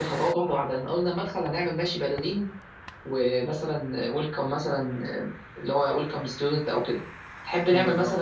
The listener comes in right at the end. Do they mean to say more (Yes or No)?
No